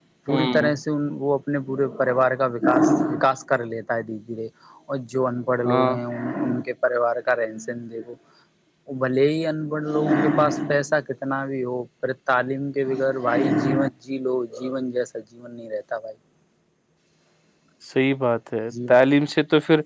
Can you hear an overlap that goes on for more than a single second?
No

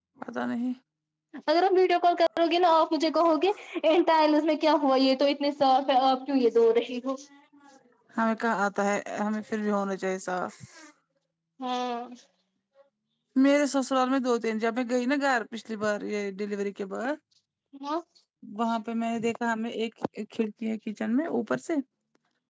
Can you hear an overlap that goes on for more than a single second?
No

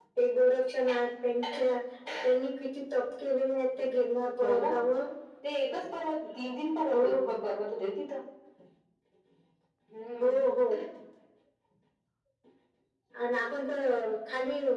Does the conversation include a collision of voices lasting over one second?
No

